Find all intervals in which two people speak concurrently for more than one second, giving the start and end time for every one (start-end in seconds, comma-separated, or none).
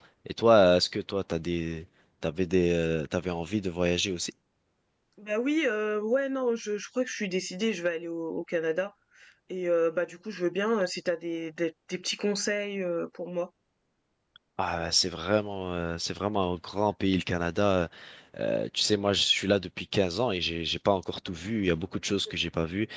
none